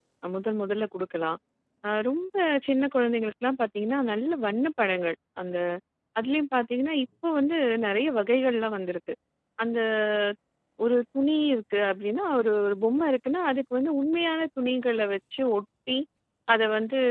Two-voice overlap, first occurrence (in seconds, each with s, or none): none